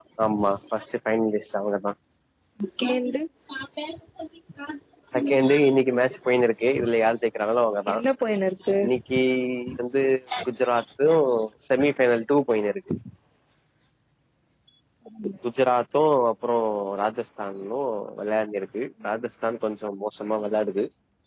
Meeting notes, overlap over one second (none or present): none